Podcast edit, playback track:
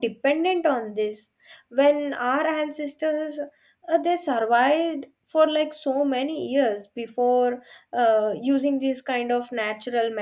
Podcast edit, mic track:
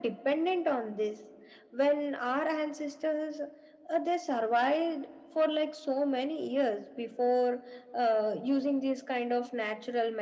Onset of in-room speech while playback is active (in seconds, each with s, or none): none